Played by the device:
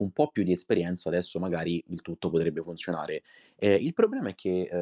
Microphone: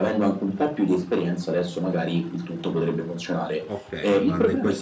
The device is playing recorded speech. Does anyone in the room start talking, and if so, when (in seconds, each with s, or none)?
3.7 s